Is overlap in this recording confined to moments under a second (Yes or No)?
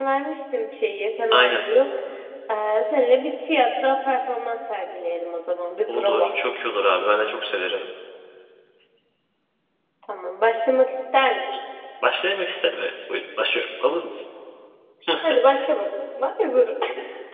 Yes